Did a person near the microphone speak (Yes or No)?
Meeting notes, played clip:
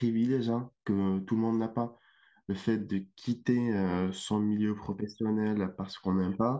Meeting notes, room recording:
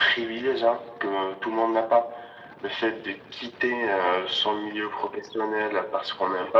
No